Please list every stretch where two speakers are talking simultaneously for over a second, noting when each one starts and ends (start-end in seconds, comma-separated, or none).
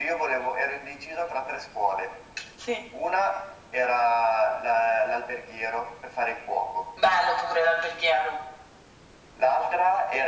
none